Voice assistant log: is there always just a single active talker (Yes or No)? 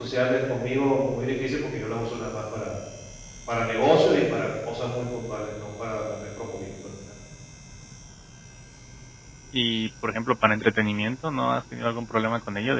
Yes